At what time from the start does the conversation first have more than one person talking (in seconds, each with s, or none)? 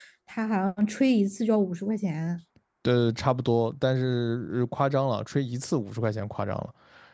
none